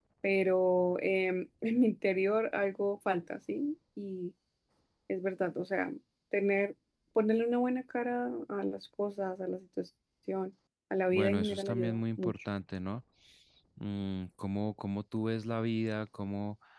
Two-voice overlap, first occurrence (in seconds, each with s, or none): 11.1 s